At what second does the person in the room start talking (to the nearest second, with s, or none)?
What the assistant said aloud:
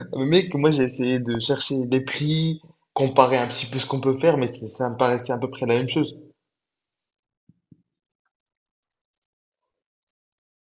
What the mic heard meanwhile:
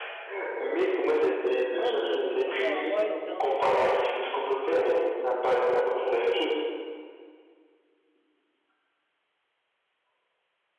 2 s